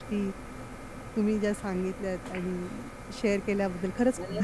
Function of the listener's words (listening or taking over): taking over